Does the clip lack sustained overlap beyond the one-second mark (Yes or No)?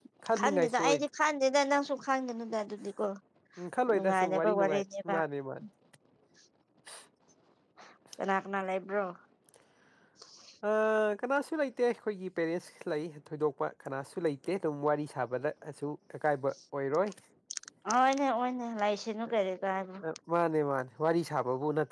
No